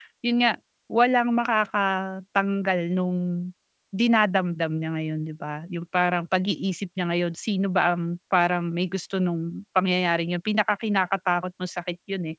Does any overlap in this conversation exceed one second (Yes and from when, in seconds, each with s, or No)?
No